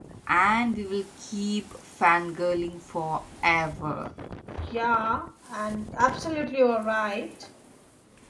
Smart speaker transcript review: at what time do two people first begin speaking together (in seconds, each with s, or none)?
none